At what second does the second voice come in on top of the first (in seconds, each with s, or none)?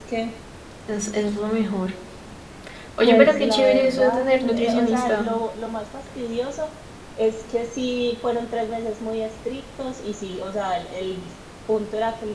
3.0 s